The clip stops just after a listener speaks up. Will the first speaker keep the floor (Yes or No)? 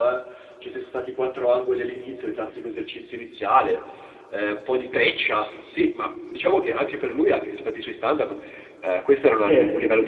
Yes